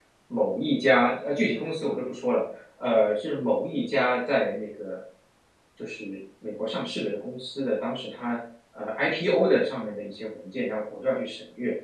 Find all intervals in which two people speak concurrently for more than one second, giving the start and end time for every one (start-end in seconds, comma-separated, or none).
none